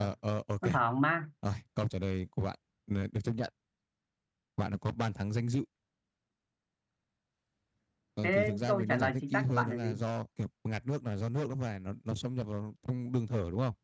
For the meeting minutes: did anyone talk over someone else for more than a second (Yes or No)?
Yes